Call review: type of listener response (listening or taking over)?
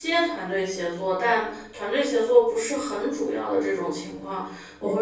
listening